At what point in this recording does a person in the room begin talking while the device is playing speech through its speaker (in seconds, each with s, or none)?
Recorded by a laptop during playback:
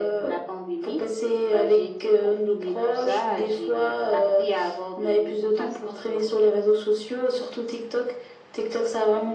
none